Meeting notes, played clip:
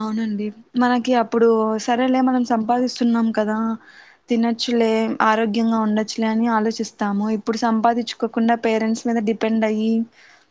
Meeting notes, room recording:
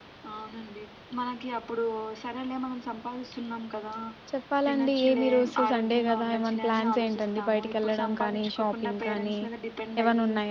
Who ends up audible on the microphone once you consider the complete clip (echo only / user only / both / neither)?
both